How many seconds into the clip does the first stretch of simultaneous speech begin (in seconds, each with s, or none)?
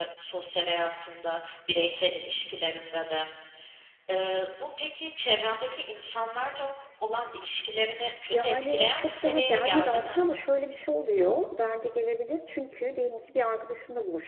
8.3 s